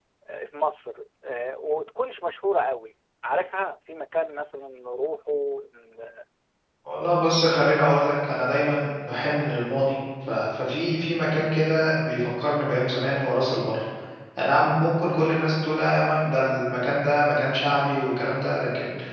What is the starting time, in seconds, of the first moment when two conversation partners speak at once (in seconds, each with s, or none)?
none